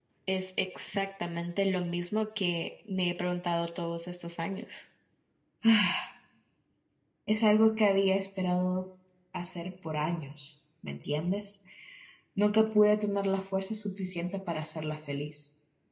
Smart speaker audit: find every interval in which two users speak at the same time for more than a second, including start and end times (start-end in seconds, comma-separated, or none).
none